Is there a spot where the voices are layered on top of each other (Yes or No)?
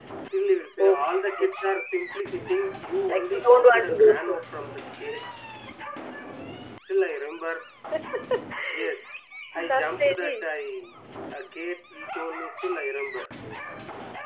Yes